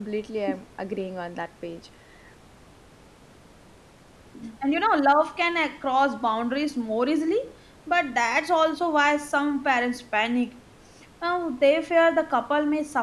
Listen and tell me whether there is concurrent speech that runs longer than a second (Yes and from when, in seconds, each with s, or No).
No